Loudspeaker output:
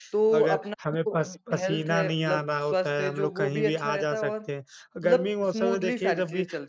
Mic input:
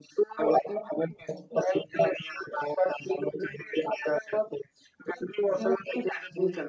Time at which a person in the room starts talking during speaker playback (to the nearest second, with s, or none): none